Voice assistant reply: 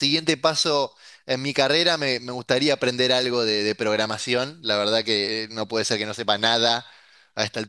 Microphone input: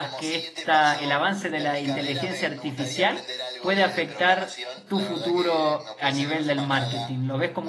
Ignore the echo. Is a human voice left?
Yes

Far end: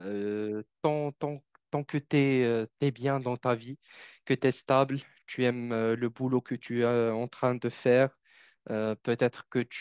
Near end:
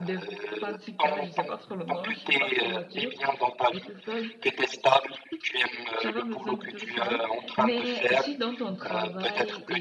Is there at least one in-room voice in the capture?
Yes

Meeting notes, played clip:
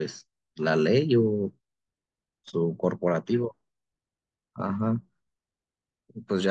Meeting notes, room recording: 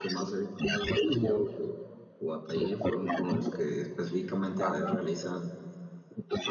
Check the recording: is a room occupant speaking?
Yes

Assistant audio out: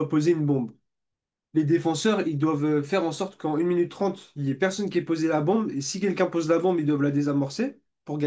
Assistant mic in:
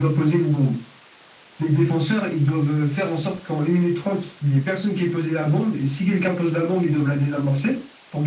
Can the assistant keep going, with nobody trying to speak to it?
Yes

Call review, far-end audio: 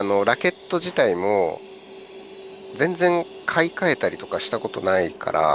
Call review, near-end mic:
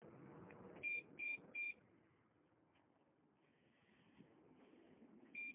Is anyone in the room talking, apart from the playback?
No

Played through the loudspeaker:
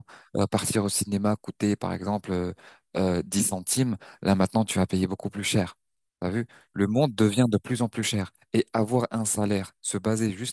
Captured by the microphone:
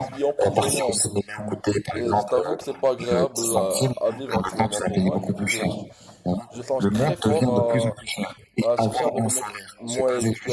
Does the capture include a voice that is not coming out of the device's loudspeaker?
Yes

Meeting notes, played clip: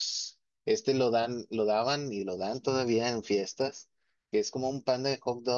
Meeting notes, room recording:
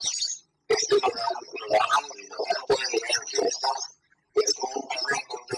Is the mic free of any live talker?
Yes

